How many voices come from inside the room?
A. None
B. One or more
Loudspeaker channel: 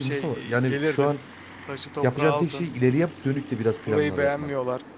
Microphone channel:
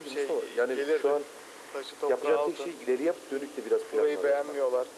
A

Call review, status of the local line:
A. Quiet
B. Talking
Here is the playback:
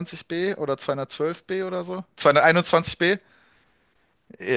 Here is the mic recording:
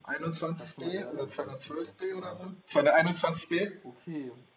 B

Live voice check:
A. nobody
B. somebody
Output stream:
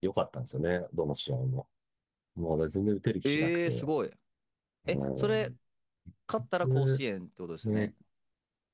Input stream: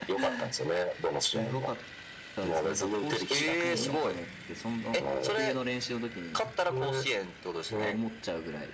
B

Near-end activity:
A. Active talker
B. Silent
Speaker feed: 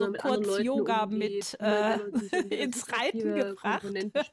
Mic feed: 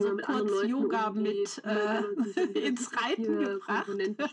B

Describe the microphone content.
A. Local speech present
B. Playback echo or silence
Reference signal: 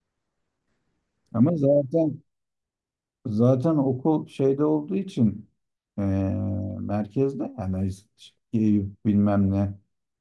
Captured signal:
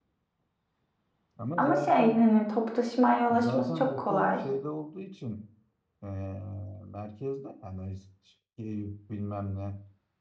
A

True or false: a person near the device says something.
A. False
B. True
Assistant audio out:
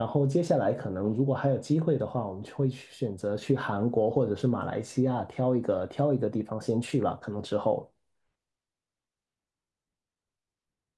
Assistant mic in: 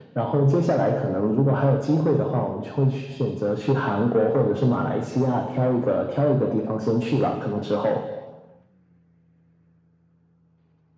A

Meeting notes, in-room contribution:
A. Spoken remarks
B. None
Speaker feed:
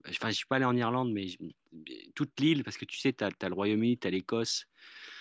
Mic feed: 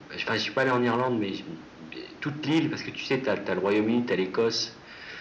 B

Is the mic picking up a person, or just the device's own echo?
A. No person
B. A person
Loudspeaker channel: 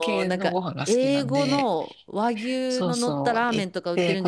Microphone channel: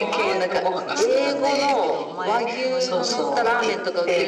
B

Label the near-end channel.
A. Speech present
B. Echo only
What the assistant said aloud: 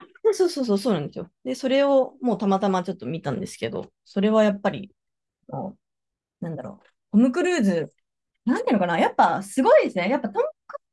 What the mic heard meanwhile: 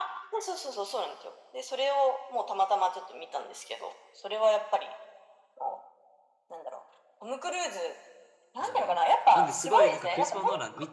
A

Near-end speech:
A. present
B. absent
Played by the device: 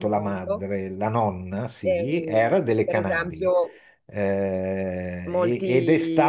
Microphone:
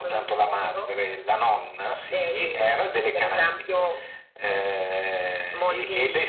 B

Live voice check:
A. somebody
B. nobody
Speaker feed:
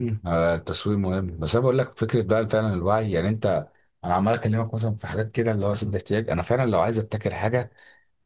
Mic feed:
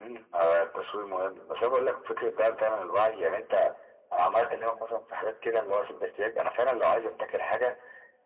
B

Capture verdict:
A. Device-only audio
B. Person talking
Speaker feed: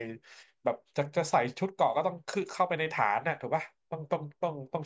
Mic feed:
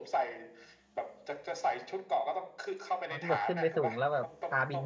B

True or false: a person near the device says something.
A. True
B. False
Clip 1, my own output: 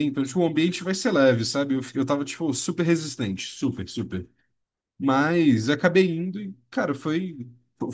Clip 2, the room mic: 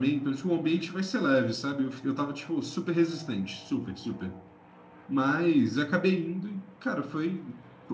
B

